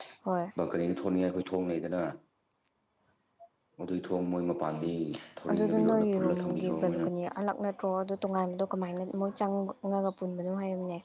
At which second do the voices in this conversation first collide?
5.5 s

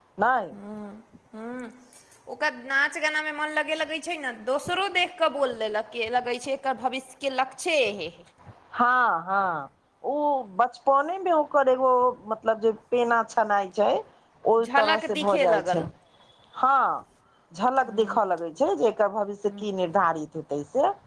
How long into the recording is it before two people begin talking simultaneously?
14.6 s

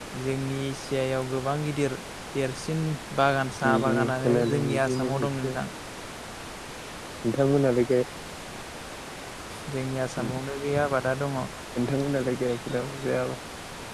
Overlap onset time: 3.6 s

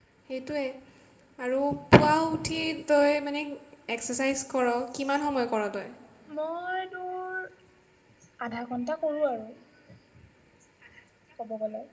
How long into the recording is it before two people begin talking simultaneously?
none

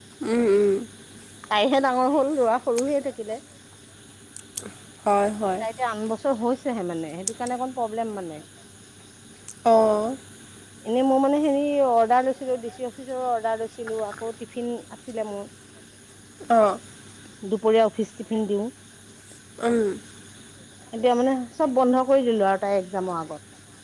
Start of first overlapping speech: none

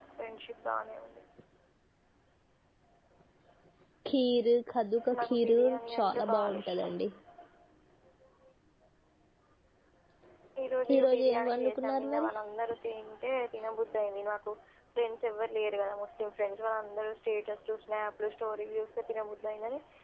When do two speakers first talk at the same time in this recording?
5.2 s

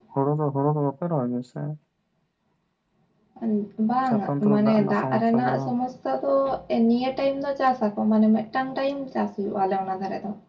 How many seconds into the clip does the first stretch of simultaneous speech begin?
4.1 s

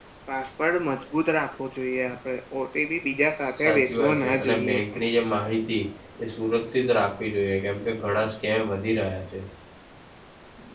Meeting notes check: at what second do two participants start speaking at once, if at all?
3.6 s

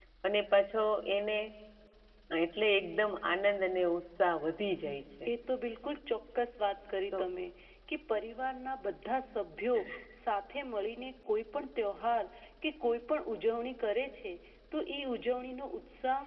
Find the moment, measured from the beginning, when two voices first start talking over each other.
none

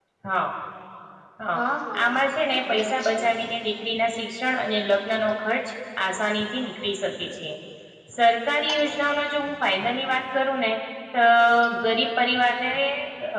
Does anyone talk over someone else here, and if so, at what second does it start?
2.0 s

